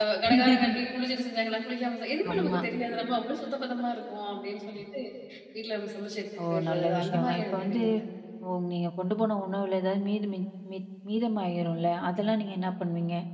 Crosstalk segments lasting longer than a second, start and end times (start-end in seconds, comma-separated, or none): 6.4-7.8